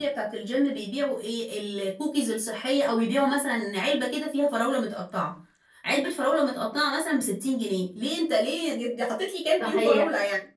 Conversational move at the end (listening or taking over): taking over